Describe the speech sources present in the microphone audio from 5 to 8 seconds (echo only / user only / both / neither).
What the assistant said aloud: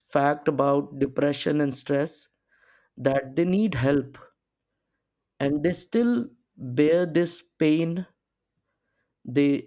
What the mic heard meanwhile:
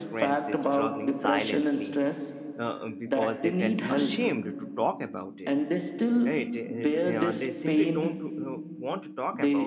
both